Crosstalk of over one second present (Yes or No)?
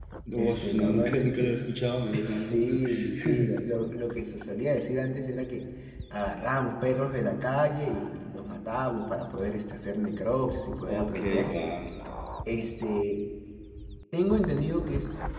Yes